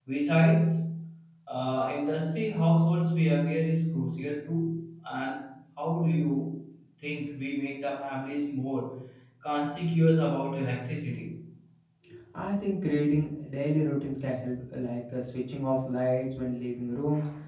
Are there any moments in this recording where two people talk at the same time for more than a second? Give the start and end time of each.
none

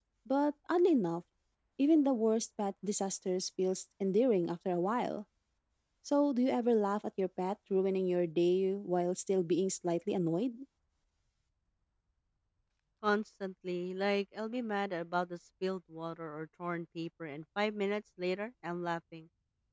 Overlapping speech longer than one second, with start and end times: none

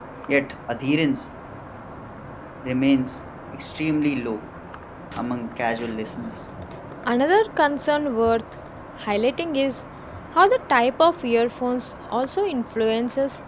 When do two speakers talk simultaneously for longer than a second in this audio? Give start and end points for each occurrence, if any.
none

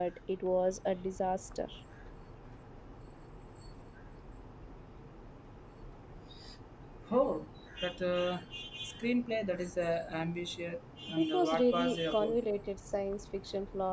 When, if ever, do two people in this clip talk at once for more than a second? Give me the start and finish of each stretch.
11.2-12.4

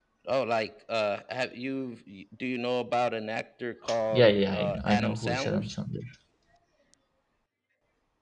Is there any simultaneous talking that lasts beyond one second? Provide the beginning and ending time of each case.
4.1-5.7

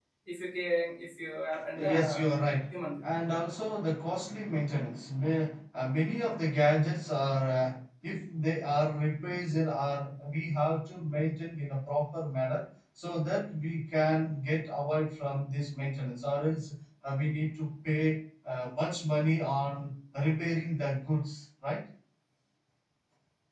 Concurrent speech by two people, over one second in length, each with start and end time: none

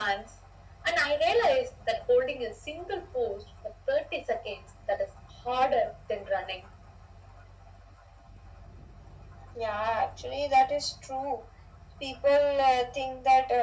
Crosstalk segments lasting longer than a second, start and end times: none

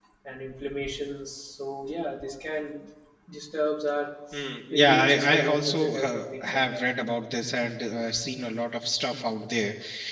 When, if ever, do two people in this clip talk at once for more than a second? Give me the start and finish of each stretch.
4.7-6.9

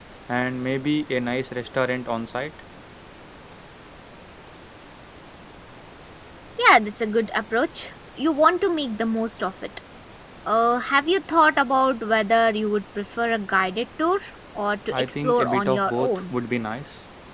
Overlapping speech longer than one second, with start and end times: 14.9-16.3

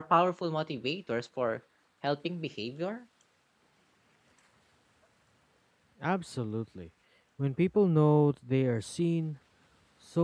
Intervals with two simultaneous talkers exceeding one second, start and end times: none

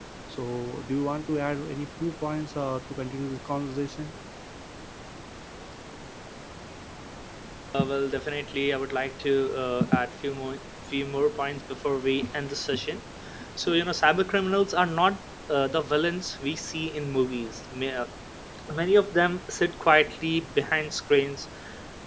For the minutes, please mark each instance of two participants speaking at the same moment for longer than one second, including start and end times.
none

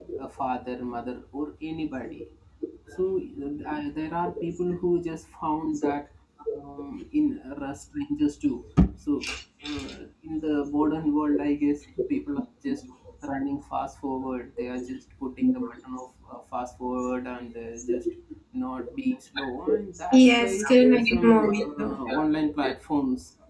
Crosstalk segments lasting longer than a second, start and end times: 20.1-22.0

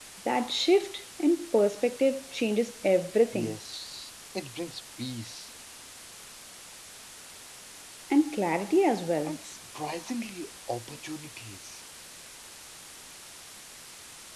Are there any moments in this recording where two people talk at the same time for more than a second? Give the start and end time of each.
none

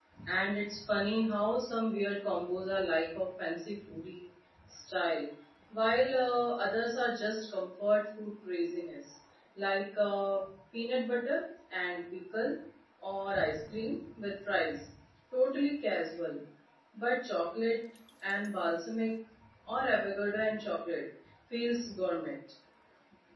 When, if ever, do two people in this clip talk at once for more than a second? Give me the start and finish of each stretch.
none

